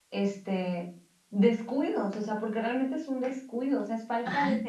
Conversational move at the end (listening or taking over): taking over